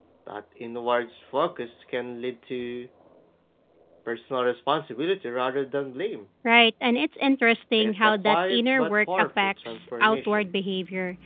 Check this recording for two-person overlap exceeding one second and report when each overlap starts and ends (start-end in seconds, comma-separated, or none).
7.8-10.5